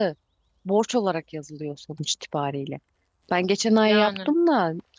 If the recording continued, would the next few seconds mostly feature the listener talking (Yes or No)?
No